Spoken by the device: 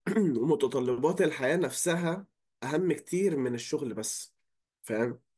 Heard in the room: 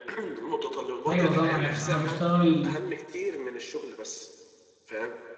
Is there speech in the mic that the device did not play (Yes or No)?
Yes